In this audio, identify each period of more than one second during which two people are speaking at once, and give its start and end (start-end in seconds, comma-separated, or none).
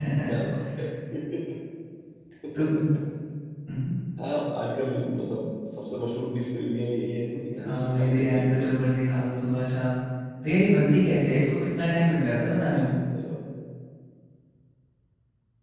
7.6-8.8